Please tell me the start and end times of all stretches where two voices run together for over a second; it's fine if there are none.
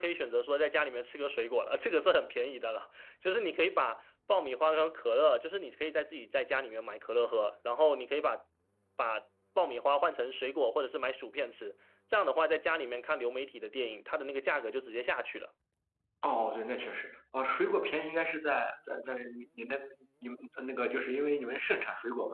none

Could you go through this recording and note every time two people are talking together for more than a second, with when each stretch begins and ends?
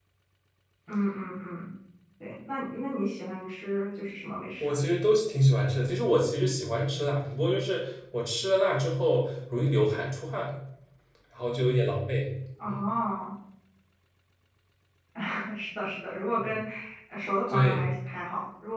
none

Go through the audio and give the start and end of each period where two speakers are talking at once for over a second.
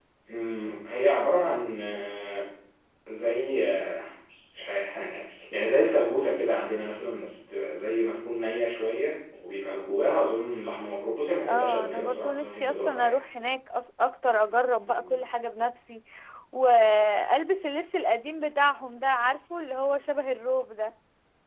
11.4-13.2

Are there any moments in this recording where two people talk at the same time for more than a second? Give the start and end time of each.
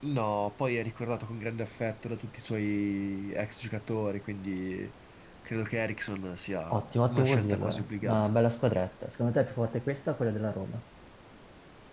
6.7-8.3

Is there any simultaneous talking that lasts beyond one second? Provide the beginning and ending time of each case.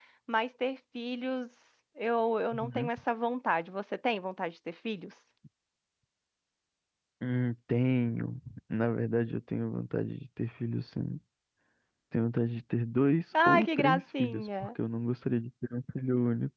13.4-14.7

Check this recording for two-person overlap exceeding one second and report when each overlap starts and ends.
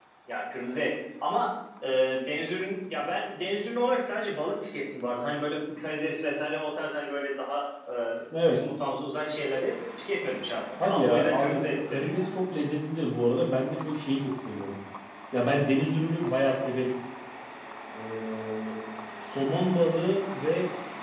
10.8-12.3

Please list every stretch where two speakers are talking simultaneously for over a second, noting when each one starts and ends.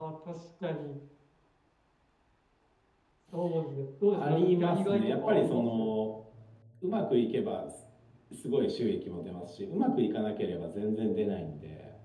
4.1-5.9

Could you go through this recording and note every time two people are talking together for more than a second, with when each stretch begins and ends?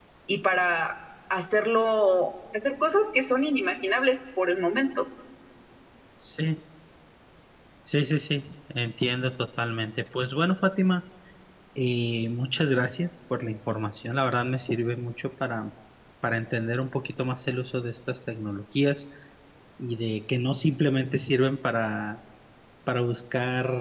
none

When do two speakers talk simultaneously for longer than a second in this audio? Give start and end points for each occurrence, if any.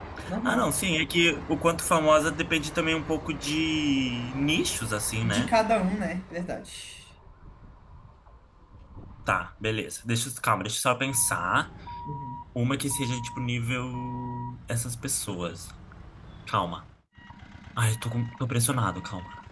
none

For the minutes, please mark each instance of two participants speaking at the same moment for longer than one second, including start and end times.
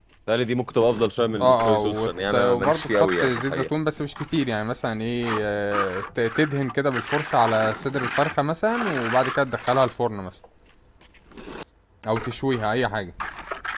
1.4-3.7

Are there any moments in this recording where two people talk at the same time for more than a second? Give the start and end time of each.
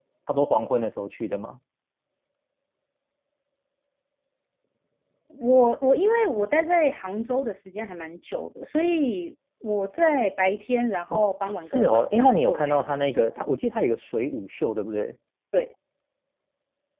11.6-13.5

